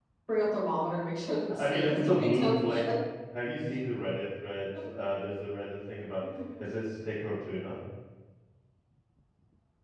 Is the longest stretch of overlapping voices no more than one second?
No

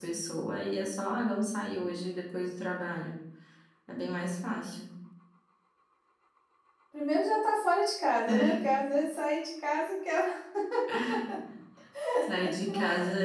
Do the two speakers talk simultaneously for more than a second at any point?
No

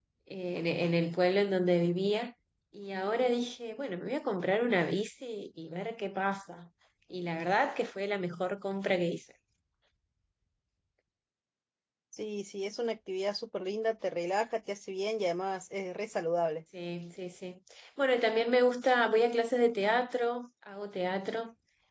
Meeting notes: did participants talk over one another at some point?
No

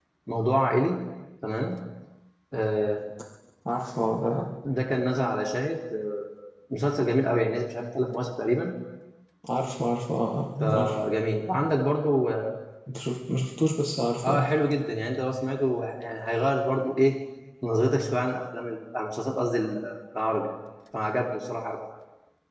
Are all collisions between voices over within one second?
Yes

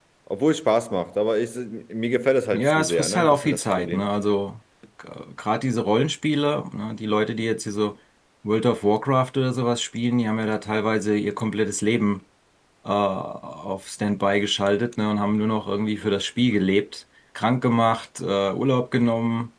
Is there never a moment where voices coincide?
No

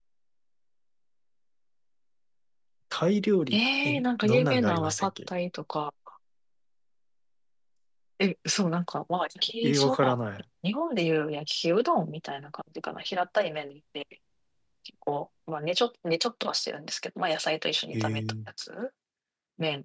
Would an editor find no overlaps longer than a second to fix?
No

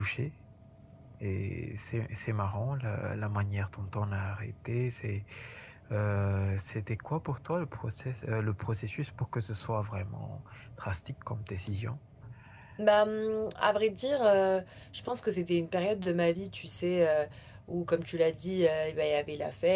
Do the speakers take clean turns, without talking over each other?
Yes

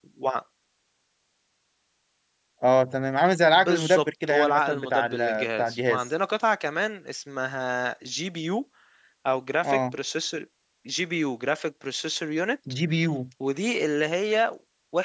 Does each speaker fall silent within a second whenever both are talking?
No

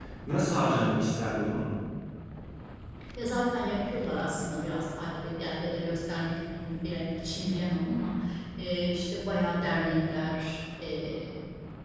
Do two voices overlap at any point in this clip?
No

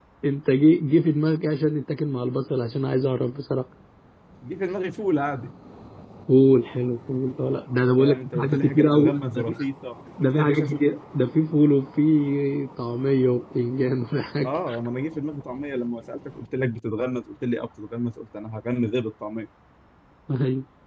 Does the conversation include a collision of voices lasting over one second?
Yes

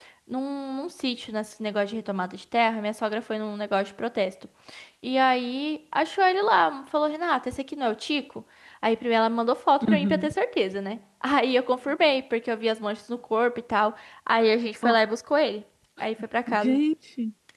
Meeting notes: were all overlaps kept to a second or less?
Yes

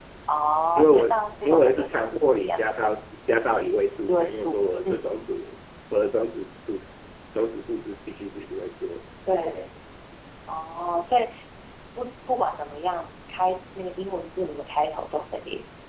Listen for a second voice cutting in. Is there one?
Yes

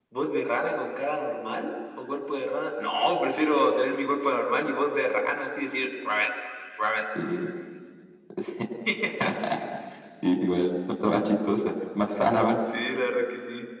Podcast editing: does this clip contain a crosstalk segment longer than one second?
No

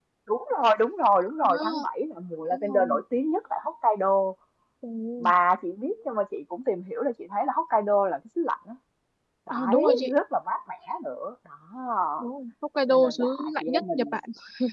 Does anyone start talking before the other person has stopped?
Yes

